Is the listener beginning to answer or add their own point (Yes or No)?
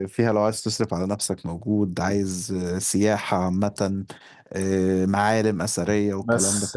Yes